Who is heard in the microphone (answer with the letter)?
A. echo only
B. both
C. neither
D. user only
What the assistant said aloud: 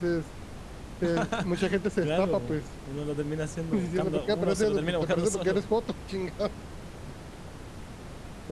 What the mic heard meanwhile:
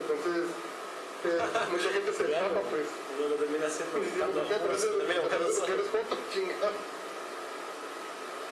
A